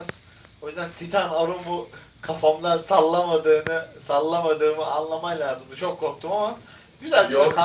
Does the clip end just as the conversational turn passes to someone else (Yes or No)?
Yes